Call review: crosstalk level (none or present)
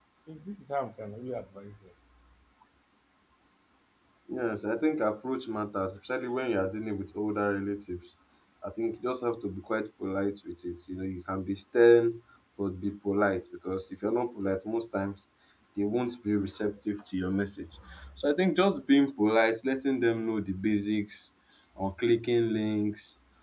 none